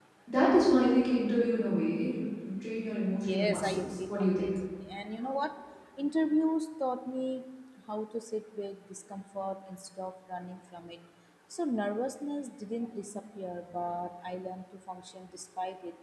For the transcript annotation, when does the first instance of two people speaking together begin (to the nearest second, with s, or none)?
3 s